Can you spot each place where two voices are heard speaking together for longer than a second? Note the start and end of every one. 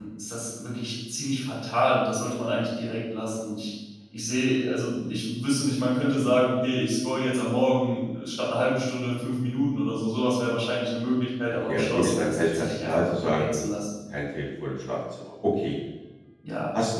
11.7-13.6

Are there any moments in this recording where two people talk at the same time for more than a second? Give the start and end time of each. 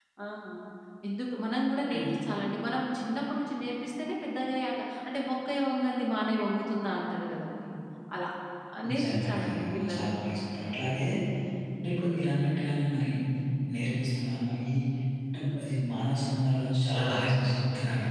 8.9-10.3

